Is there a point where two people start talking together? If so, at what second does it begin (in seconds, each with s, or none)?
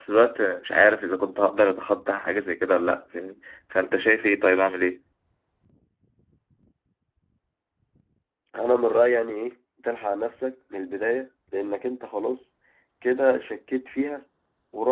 none